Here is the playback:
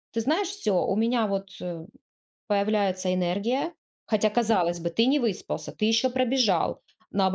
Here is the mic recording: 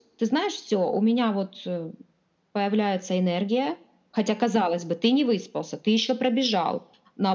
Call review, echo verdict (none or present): present